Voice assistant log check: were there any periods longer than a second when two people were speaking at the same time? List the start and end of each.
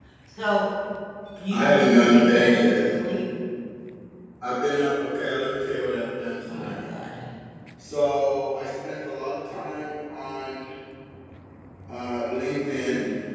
1.5-2.8

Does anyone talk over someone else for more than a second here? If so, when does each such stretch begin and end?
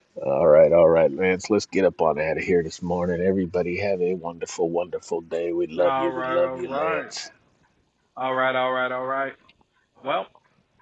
5.8-7.0

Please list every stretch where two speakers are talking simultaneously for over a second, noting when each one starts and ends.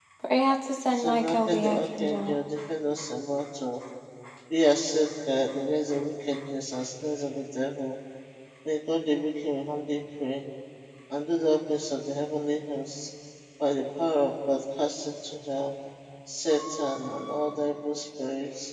0.9-2.3

